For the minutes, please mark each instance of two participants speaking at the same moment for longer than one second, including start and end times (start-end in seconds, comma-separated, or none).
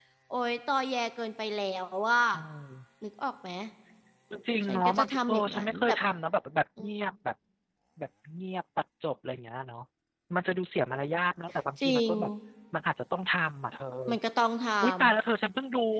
4.7-6.0